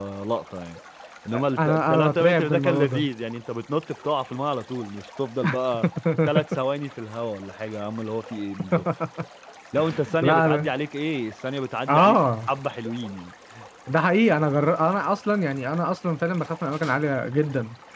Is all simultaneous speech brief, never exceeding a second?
No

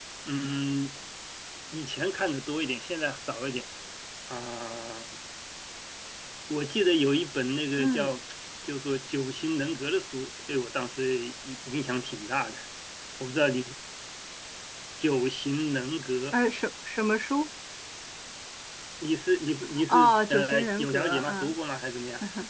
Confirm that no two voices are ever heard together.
No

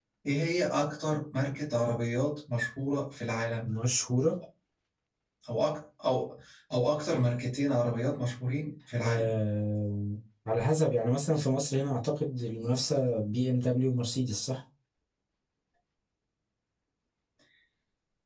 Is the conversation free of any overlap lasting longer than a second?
Yes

